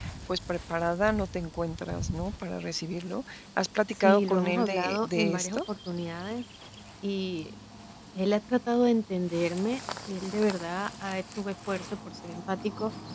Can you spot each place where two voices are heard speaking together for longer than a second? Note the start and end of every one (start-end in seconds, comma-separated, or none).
4.0-5.6